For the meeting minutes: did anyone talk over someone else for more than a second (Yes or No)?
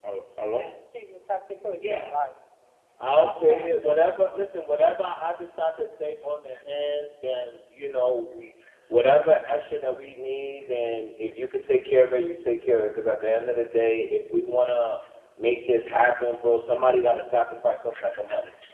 No